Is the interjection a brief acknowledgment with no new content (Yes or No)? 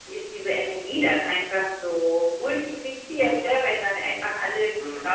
Yes